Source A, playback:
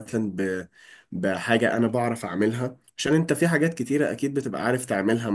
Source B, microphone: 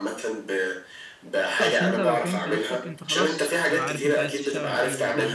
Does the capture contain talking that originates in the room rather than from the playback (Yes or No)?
Yes